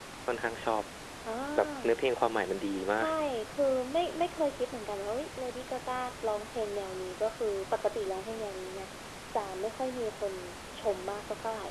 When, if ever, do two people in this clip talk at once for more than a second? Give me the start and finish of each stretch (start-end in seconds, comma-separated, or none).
none